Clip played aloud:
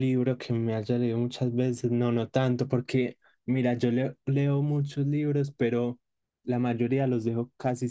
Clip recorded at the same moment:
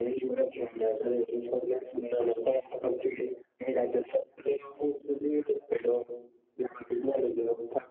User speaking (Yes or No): No